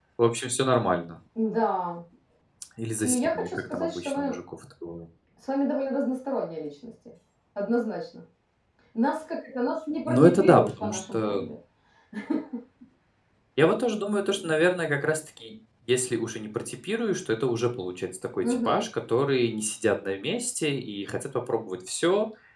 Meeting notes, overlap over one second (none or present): present